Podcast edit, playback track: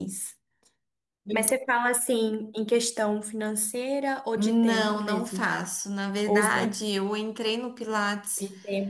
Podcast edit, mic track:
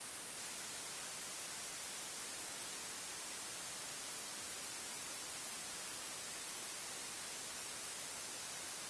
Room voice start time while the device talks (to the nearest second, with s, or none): none